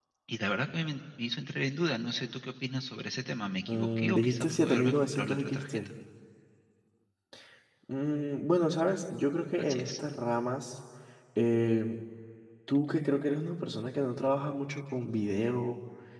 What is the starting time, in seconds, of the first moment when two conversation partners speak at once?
3.7 s

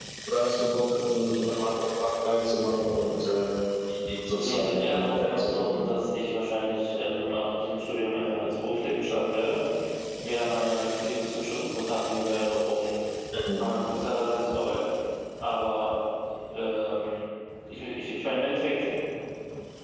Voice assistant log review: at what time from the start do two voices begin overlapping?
4.3 s

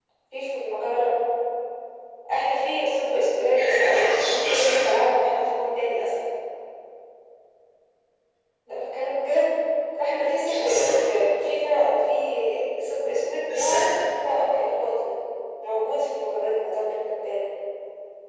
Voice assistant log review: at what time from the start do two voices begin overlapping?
3.5 s

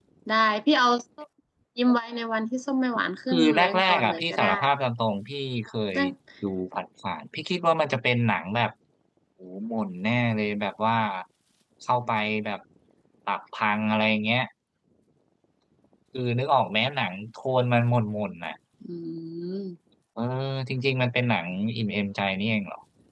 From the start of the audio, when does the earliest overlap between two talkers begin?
3.3 s

